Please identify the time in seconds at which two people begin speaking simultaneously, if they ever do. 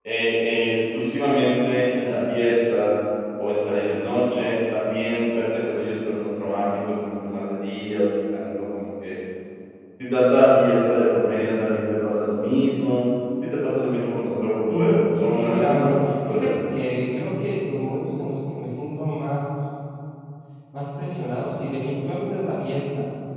15 s

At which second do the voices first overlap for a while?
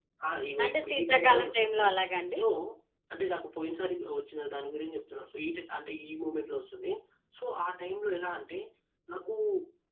1 s

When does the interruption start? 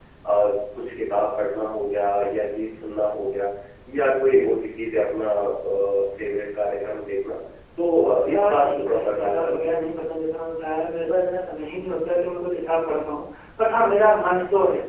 8 s

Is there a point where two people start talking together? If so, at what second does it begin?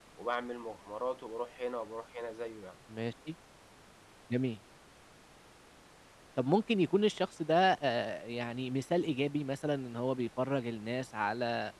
none

